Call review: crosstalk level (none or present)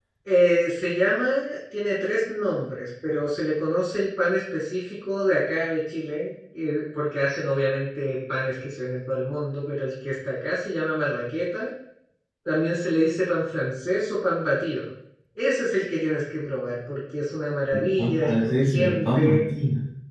present